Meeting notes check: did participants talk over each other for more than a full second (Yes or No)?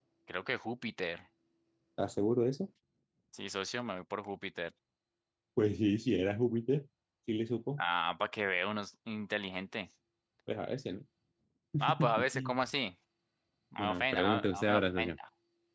Yes